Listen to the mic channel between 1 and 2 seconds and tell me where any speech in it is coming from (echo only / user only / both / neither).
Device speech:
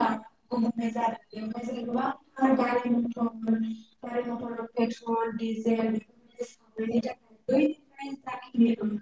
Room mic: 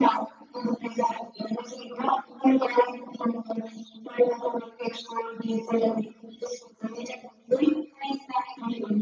echo only